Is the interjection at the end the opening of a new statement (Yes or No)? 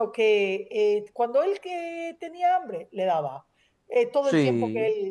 No